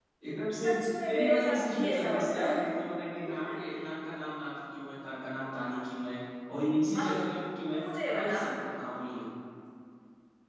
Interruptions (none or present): present